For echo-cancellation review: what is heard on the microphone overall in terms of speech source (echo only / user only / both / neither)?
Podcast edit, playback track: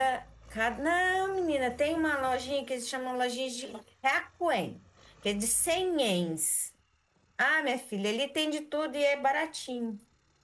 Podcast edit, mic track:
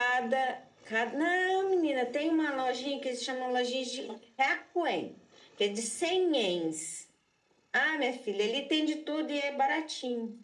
echo only